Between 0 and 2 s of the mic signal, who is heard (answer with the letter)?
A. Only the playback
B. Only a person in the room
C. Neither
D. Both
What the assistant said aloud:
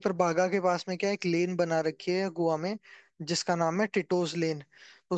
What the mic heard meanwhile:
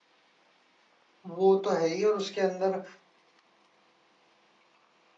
B